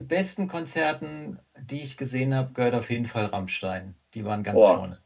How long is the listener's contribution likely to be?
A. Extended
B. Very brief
A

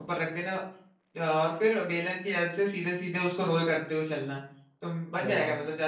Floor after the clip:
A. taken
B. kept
B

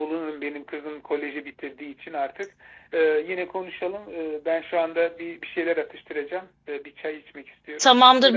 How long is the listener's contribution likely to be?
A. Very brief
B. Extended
B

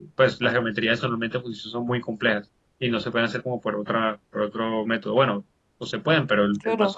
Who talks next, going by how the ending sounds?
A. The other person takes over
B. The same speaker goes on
B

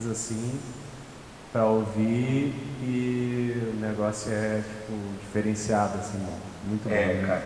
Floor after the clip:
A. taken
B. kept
A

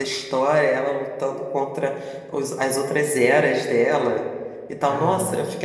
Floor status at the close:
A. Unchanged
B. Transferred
A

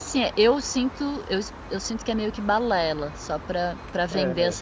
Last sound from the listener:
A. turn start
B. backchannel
A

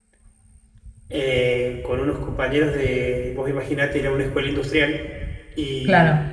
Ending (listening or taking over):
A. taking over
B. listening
B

